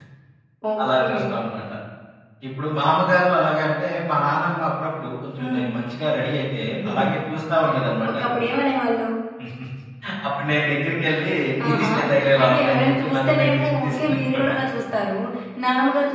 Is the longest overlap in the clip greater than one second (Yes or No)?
Yes